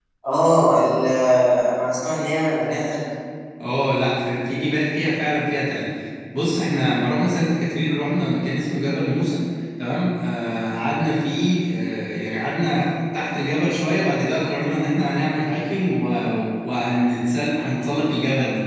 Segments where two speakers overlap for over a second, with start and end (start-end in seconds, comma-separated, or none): none